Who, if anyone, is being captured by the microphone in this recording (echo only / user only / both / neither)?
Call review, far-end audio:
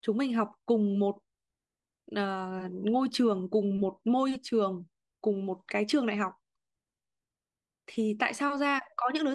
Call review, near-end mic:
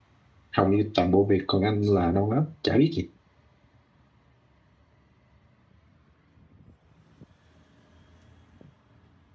user only